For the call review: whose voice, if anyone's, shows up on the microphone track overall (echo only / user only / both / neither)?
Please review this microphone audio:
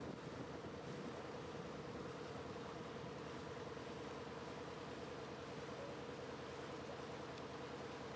neither